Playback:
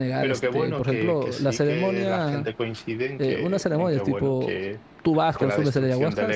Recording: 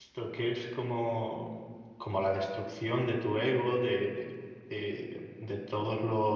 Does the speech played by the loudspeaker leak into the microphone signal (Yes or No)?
No